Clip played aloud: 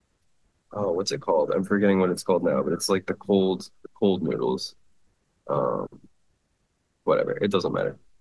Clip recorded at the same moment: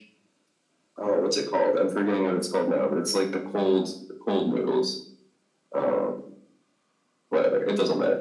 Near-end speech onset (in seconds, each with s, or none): none